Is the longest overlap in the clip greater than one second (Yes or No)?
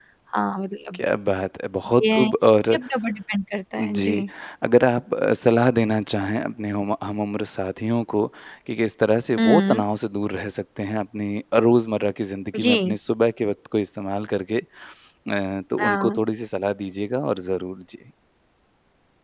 No